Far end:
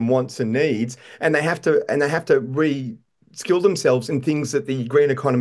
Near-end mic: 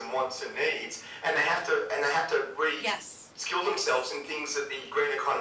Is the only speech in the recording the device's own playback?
No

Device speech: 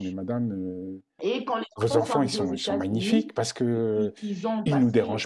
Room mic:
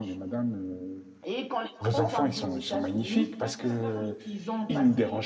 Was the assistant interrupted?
Yes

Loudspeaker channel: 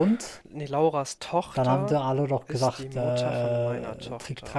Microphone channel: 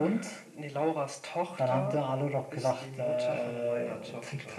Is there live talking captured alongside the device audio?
No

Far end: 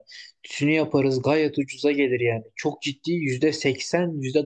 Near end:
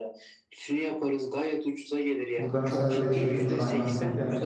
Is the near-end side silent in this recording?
No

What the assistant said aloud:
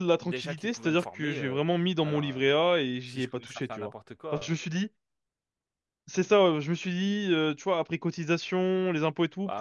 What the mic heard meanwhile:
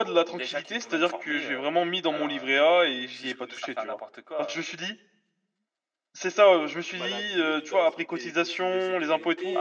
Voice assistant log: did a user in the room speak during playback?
Yes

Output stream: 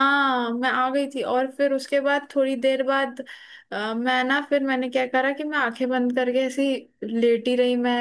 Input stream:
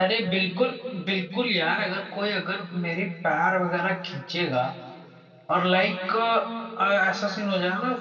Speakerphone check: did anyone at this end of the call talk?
Yes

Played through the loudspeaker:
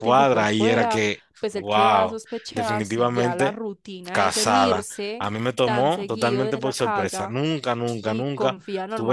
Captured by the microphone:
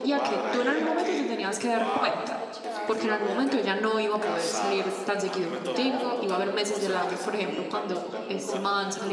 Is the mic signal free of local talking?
No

